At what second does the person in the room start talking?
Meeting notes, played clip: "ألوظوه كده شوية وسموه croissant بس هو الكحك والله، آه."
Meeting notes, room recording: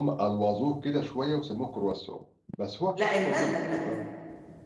3 s

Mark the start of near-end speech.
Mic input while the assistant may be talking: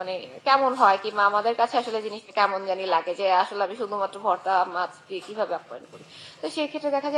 none

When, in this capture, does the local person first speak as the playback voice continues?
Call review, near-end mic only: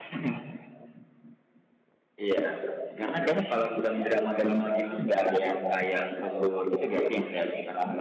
none

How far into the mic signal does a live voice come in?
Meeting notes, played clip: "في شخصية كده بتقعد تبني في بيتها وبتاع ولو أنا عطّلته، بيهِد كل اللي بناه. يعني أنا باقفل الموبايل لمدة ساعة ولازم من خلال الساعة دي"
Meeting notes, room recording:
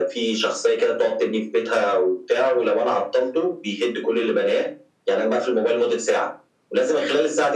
none

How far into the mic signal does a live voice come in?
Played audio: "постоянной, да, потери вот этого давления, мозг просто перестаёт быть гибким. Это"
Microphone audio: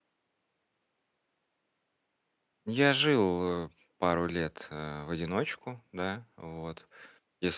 3 s

